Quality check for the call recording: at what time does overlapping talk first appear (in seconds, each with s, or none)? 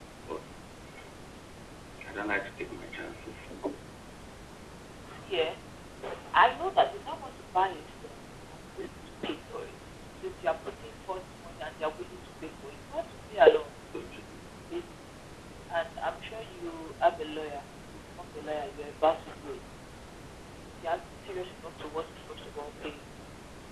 none